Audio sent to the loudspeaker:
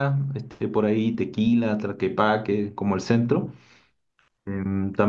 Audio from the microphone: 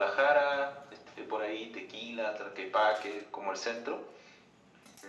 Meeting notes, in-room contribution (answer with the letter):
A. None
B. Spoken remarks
A